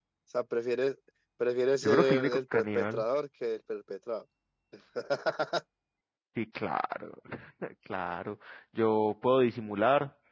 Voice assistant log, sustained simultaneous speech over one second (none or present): present